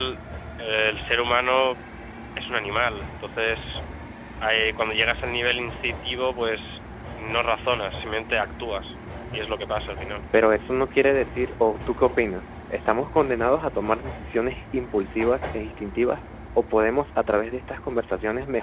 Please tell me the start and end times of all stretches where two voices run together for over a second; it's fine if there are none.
none

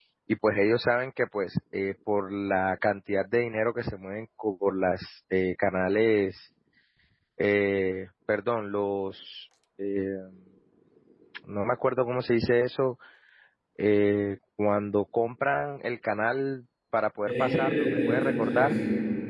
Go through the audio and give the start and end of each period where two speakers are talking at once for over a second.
17.2-18.8

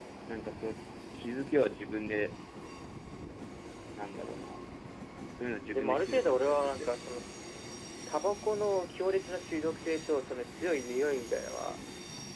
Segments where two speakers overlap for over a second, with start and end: 5.7-6.9

